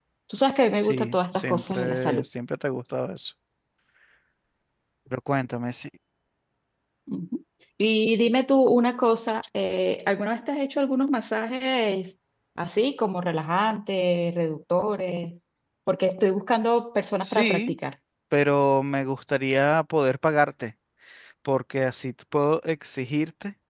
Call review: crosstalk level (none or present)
present